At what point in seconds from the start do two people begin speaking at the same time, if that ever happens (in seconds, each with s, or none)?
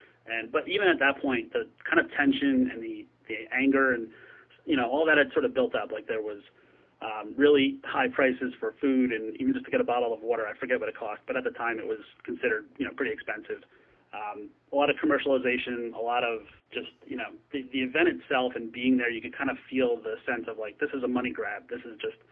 none